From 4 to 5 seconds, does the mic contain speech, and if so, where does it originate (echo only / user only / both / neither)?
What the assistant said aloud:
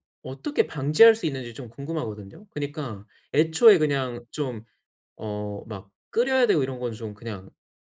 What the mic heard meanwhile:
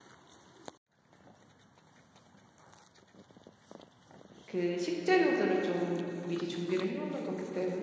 user only